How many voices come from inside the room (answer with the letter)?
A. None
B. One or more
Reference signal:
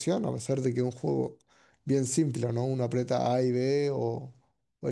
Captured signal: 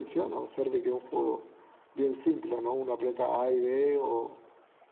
A